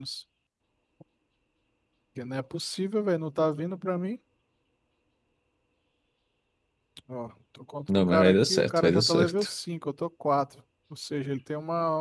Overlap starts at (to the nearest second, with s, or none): 8 s